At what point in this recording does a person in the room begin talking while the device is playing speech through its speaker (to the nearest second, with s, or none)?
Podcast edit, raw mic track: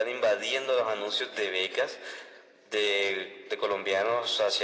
none